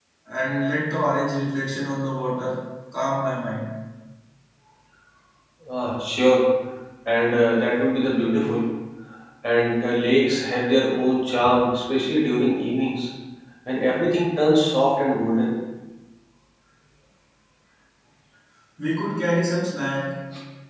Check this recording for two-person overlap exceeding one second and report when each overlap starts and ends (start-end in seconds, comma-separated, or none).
none